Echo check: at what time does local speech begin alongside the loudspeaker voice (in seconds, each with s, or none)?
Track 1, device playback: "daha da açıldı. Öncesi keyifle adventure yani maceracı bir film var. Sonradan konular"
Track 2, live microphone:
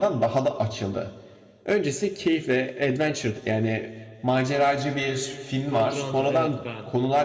5.7 s